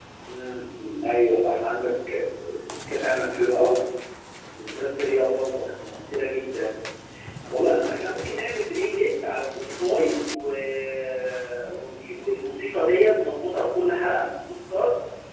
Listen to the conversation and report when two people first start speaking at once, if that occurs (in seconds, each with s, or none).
none